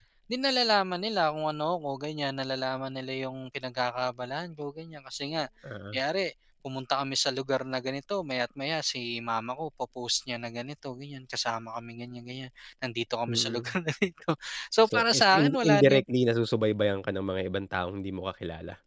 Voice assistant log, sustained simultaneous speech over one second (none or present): present